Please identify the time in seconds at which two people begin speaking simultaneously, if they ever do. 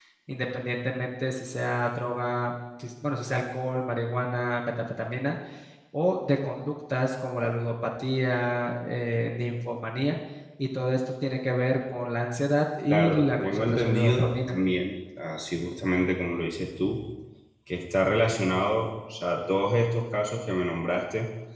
13 s

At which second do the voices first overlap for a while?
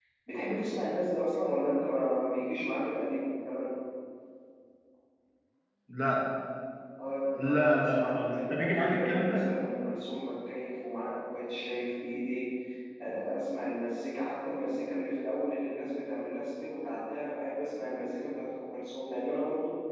7 s

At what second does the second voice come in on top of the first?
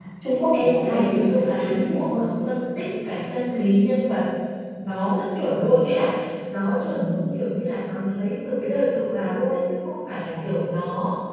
1 s

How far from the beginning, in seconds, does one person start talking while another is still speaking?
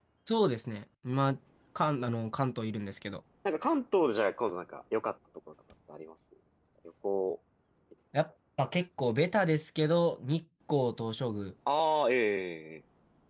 none

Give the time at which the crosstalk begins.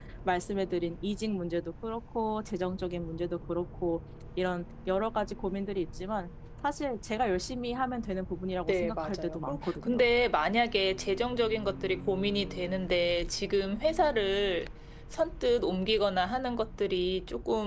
9 s

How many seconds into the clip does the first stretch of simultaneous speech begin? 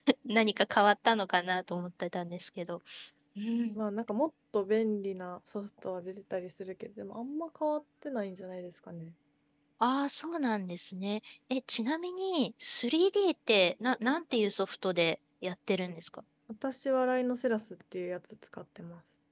none

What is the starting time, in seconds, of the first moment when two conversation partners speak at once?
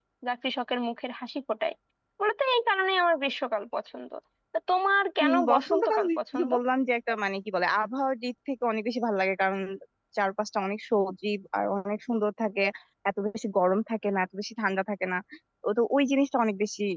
5 s

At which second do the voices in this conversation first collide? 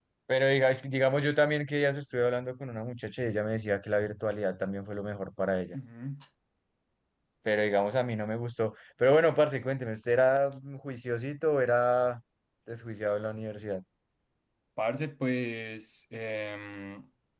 none

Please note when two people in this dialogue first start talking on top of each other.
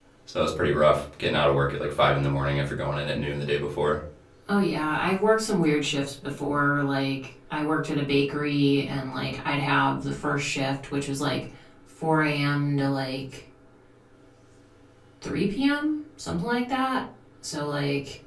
none

